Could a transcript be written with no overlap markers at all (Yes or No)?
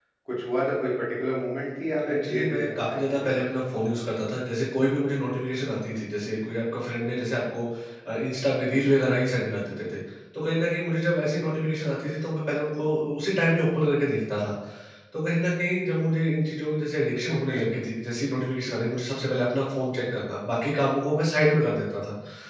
No